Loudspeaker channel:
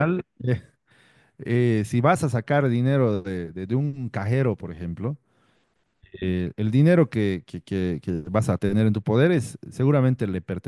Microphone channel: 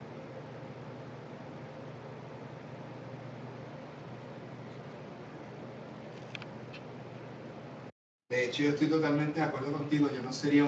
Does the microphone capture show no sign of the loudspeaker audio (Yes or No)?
Yes